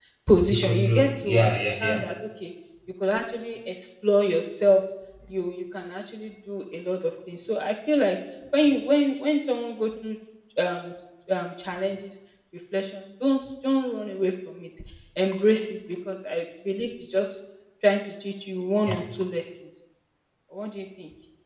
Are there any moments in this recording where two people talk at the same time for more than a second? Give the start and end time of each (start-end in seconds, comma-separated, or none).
0.5-2.0